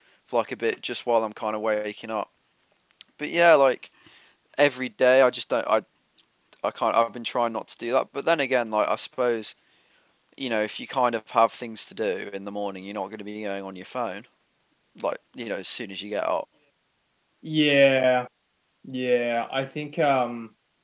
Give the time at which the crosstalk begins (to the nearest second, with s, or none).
none